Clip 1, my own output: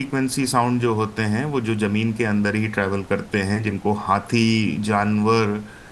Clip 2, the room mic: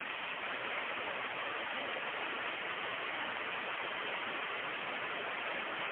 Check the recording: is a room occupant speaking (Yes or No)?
No